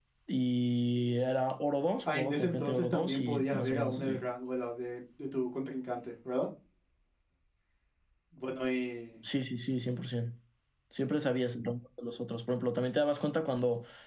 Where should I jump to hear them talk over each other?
2.1 s

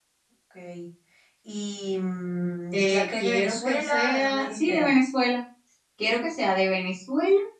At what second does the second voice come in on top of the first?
2.7 s

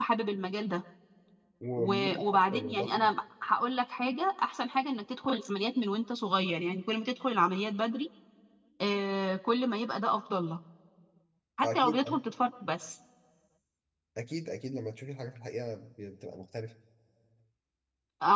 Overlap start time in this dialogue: 1.8 s

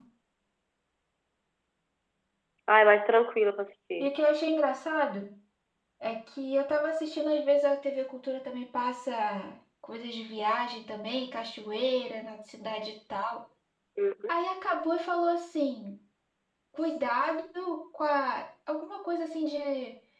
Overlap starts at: none

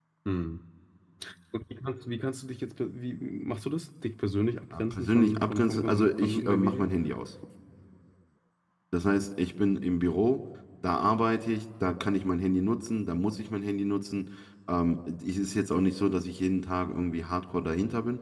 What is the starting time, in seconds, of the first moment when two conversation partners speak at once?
4.7 s

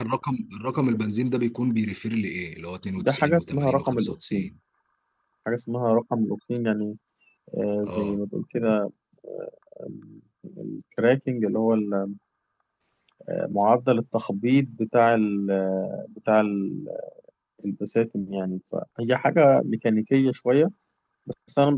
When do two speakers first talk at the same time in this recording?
3.0 s

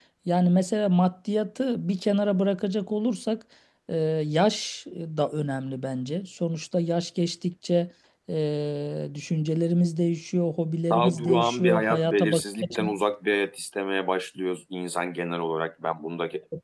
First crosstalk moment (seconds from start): 10.9 s

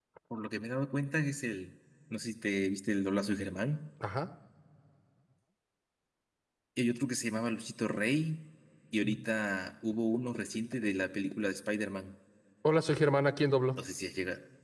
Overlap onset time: none

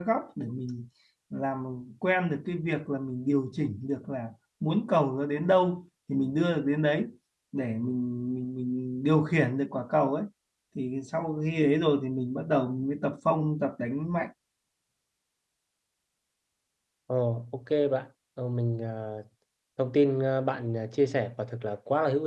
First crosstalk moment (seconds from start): none

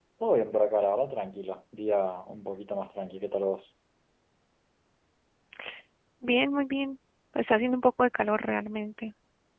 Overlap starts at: none

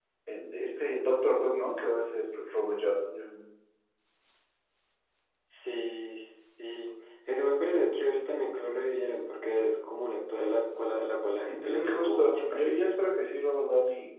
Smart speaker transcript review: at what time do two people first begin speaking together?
11.5 s

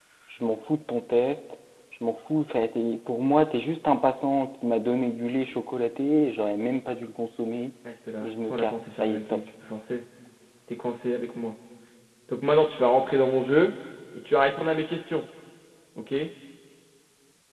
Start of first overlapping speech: 8.2 s

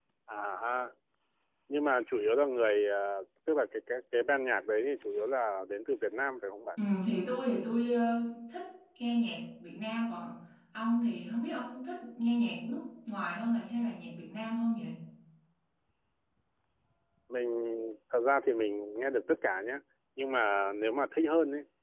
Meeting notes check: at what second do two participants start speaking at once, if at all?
none

